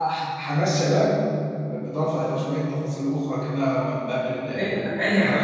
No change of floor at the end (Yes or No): No